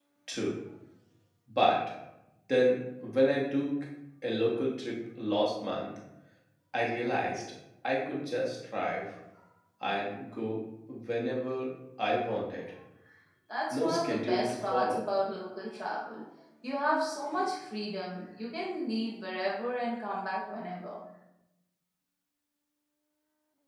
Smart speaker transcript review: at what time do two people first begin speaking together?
13.7 s

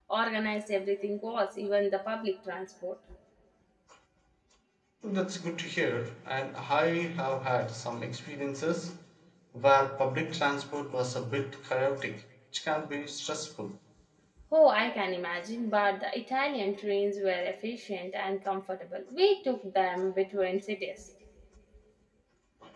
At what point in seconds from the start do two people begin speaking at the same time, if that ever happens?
none

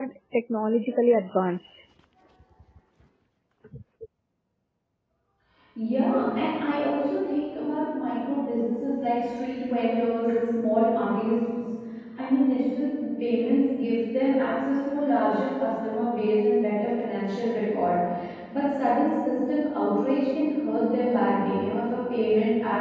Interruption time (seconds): none

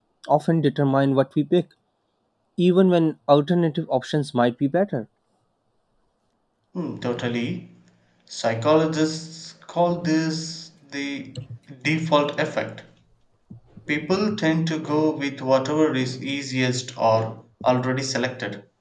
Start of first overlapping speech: none

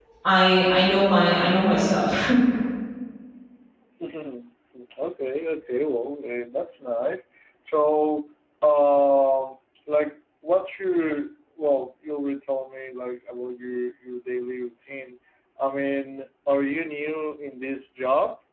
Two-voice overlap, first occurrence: none

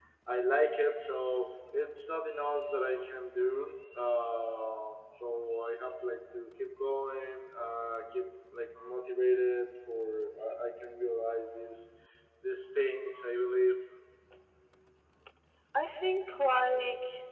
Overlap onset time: none

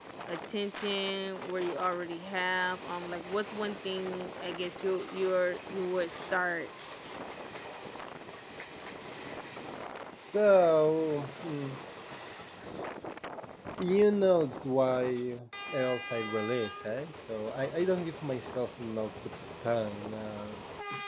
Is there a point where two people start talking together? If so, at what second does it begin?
none

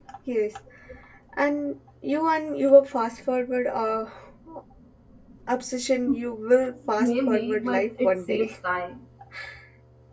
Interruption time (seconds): 7.0 s

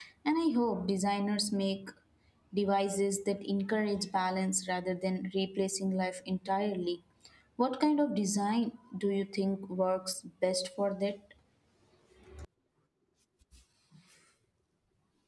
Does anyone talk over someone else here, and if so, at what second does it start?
none

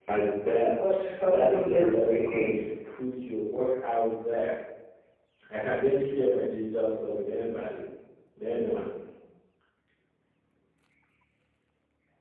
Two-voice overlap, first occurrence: 0.9 s

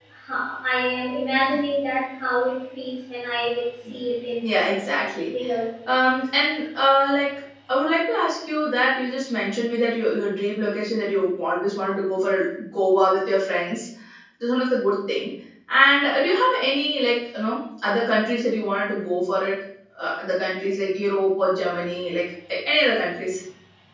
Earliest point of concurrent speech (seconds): none

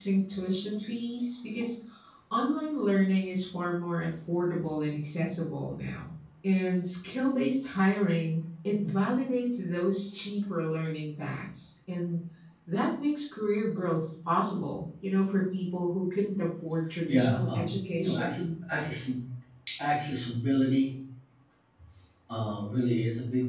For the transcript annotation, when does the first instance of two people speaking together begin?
17.1 s

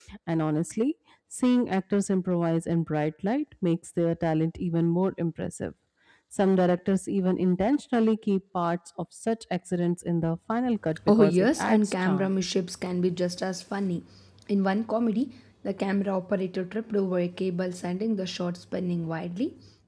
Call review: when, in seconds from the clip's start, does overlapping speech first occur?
11.1 s

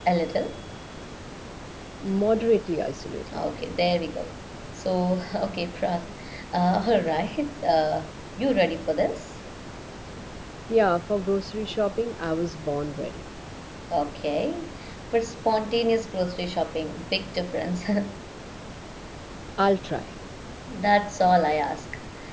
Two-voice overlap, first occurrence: none

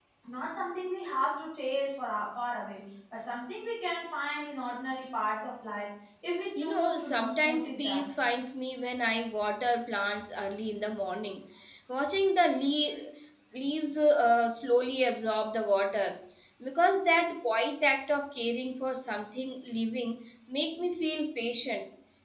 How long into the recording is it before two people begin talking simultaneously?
6.6 s

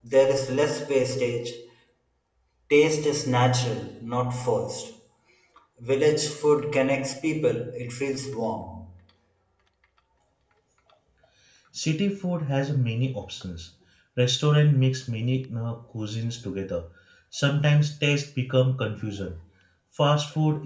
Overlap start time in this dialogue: none

